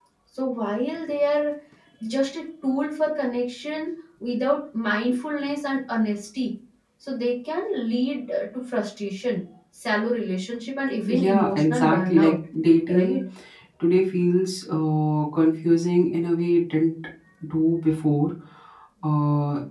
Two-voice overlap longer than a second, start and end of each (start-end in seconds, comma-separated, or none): 11.1-12.4